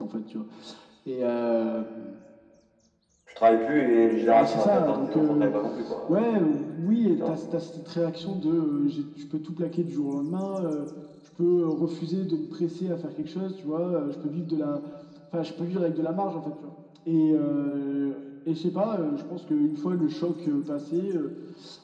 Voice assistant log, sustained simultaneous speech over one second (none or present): present